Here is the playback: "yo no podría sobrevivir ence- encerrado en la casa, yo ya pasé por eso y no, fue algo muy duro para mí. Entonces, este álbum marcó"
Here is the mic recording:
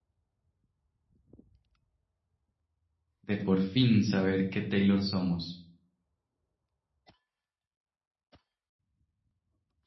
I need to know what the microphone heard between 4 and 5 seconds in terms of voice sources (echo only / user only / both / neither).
user only